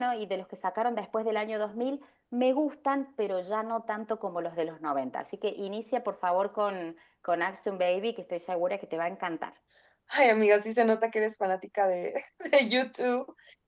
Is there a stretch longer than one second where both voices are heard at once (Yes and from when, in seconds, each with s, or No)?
No